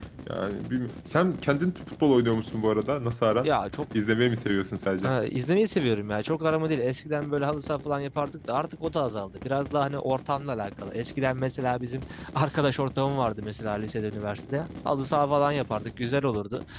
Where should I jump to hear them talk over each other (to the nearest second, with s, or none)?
none